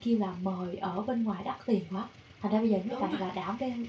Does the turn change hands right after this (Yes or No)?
No